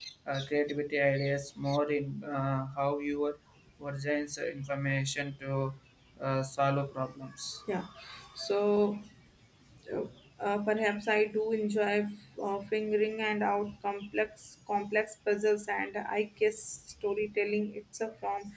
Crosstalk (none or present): none